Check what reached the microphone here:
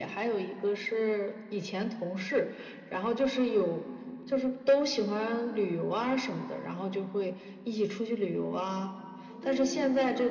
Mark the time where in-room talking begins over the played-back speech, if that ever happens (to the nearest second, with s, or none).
9 s